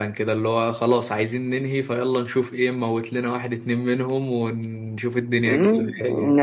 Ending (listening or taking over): taking over